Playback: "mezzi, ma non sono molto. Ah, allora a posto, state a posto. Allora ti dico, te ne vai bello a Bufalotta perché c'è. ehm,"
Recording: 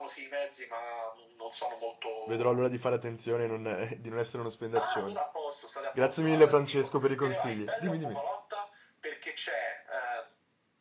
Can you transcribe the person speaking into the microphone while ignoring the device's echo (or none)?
vedrò allora di fare attenzione e non- di non essere uno spendaccione. Grazie mille Francesco per i consigli. Dimmi, dimmi.